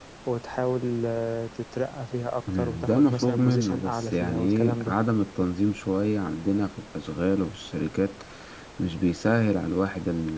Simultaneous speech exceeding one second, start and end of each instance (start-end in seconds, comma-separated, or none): 2.5-5.0